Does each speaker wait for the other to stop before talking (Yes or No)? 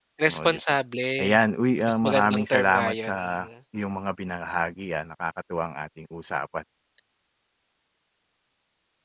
No